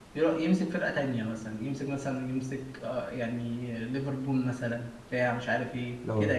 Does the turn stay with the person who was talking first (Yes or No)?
Yes